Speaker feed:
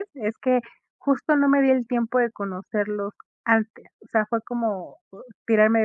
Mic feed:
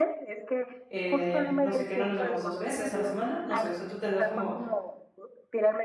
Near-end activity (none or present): present